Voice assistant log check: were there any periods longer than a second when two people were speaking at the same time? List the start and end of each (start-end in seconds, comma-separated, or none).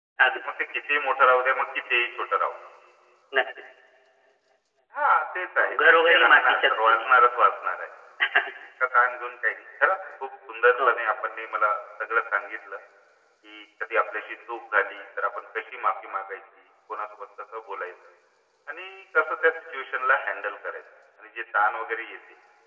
5.6-7.0